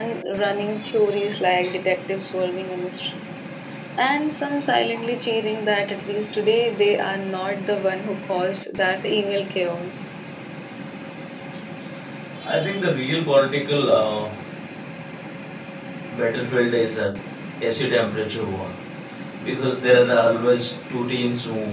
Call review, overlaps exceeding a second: none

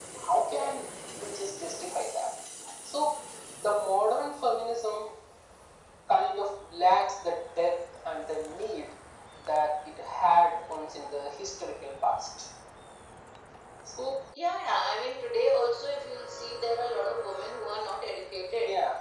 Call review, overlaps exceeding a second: none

